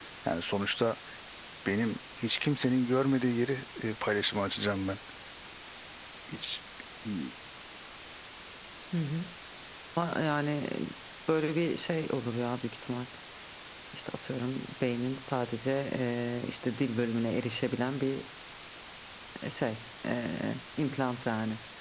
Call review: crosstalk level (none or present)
none